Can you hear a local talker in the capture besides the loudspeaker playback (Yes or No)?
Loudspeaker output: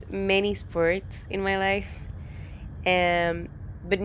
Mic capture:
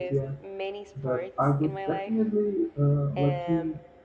Yes